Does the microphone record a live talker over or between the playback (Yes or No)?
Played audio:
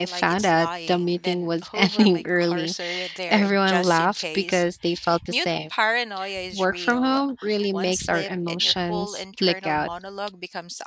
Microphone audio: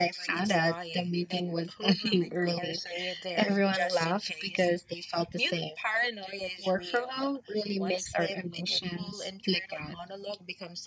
No